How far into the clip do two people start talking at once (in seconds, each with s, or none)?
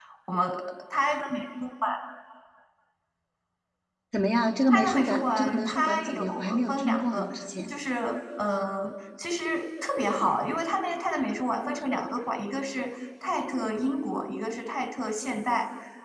4.7 s